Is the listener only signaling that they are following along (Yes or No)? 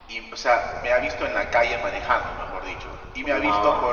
Yes